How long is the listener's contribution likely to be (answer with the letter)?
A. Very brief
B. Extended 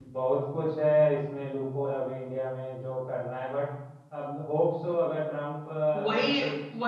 B